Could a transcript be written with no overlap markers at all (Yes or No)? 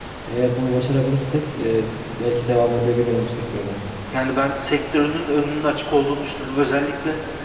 Yes